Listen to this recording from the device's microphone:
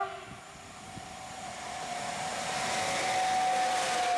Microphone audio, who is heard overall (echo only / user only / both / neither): neither